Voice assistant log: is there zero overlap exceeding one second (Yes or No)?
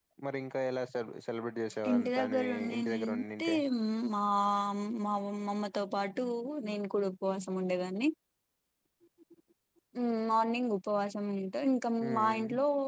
No